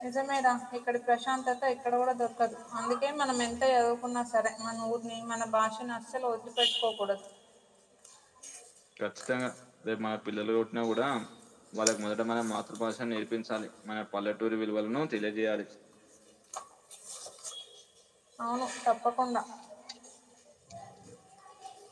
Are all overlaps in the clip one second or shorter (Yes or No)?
Yes